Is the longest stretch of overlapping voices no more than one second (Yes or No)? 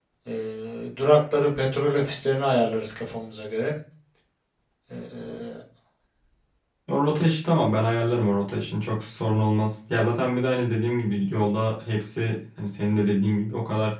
Yes